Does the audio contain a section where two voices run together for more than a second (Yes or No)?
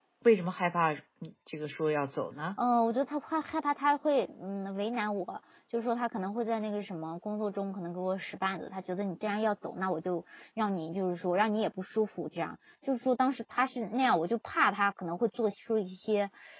No